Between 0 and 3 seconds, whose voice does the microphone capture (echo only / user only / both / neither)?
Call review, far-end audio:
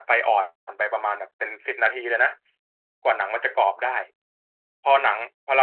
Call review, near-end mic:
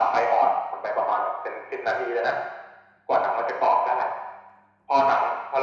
echo only